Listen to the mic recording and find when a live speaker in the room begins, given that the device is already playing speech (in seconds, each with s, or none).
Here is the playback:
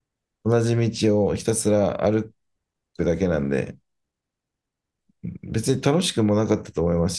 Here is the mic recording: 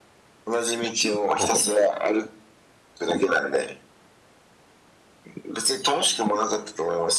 1.4 s